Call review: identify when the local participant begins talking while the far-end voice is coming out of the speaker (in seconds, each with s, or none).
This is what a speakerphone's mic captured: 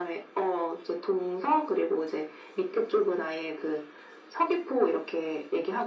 none